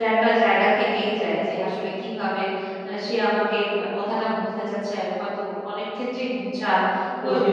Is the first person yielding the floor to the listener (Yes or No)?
Yes